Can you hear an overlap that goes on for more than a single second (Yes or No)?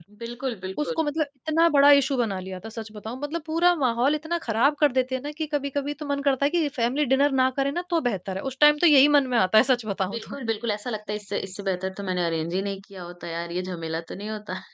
No